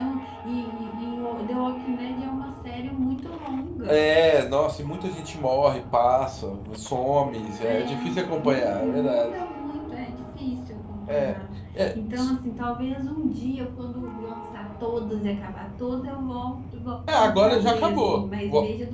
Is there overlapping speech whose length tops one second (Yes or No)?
Yes